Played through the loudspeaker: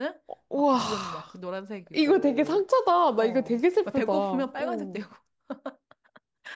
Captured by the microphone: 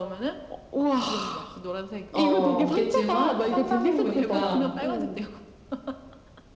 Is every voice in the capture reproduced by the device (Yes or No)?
No